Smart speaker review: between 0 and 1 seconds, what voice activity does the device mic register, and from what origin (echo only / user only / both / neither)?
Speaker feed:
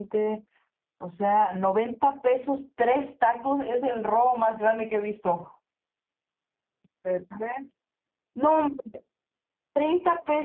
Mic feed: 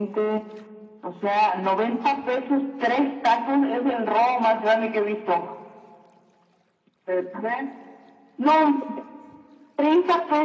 echo only